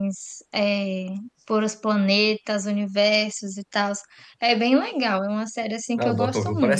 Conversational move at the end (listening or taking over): taking over